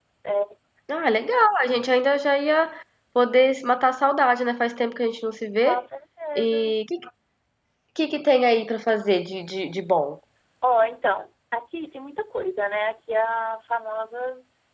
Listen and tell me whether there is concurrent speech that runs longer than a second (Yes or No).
No